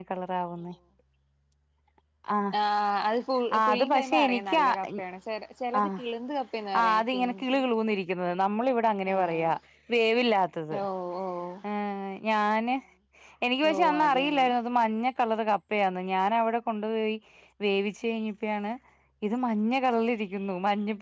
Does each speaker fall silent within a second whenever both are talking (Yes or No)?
No